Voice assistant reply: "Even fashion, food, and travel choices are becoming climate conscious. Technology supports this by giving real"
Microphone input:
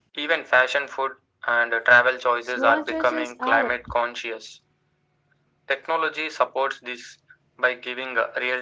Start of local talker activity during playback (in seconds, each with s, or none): 2.4 s